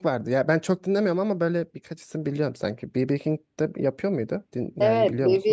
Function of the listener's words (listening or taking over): taking over